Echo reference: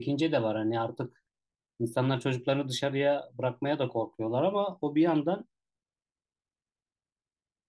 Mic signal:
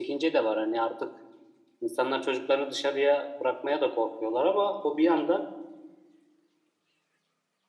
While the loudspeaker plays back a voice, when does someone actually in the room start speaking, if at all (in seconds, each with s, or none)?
none